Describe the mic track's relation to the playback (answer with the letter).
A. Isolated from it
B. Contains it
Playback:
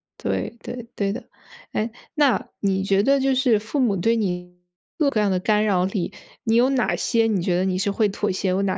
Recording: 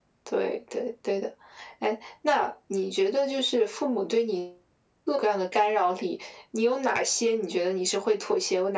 B